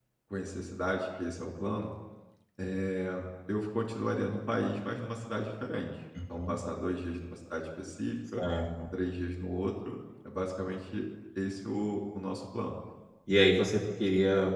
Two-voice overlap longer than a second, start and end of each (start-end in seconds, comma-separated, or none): none